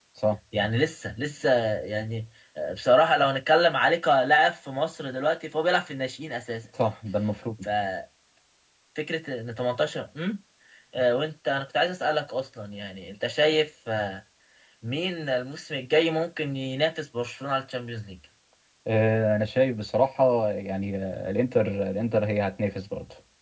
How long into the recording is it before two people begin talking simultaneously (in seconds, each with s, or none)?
none